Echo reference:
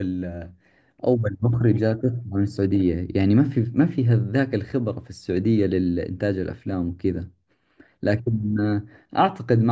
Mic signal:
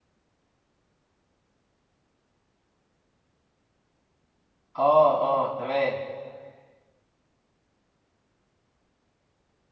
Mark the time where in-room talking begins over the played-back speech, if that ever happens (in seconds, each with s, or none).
4.7 s